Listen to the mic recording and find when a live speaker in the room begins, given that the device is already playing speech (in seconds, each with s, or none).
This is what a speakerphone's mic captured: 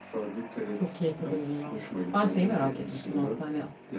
0.7 s